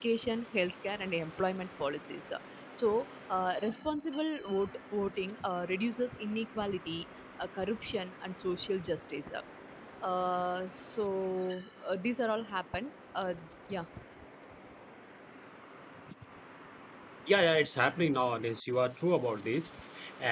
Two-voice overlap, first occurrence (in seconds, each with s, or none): none